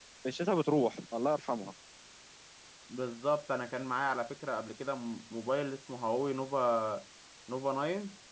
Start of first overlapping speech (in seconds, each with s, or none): none